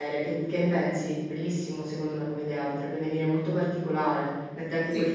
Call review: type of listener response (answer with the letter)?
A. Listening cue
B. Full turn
A